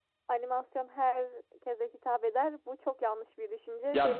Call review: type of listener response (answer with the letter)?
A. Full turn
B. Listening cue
A